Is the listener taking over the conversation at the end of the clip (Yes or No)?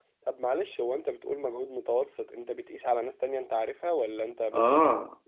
Yes